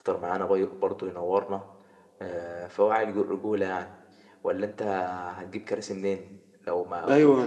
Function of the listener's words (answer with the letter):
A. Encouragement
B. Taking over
B